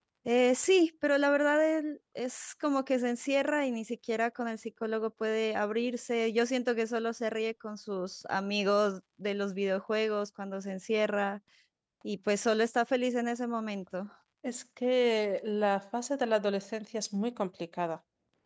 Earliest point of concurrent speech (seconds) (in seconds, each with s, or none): none